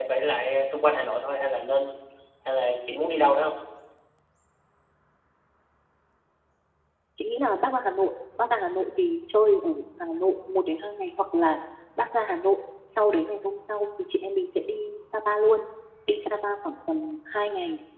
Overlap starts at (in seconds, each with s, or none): none